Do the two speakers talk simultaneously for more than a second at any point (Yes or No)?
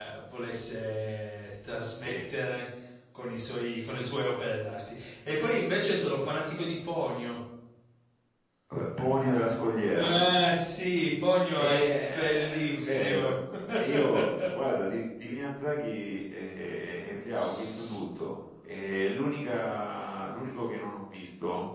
Yes